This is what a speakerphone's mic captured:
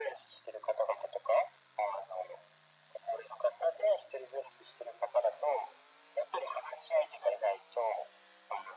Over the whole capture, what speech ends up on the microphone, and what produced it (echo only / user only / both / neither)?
echo only